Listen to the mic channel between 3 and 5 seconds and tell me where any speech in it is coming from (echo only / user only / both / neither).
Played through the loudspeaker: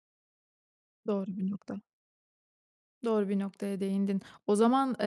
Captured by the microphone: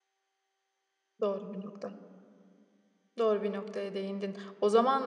echo only